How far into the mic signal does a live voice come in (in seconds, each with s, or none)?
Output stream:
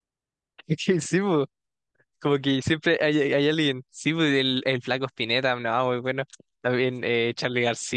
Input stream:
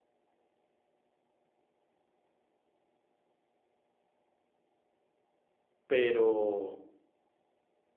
5.8 s